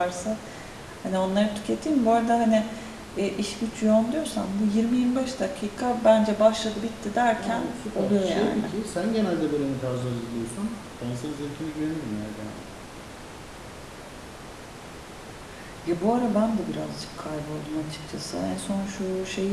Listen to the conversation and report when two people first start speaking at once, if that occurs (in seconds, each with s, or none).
7.4 s